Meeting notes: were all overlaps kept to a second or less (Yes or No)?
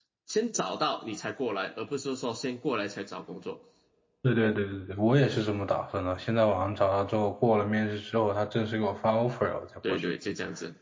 Yes